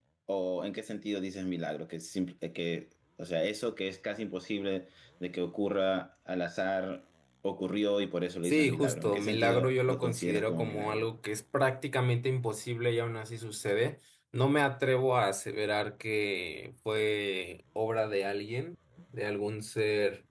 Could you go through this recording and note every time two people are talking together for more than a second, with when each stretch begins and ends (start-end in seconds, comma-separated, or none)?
8.4-11.1